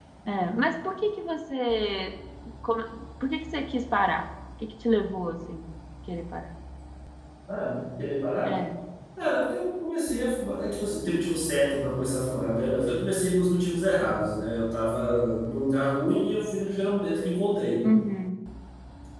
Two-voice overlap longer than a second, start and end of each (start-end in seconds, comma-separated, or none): none